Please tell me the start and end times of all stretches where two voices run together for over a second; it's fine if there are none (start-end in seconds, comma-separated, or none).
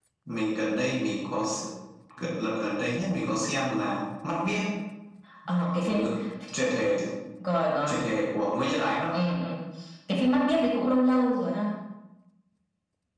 none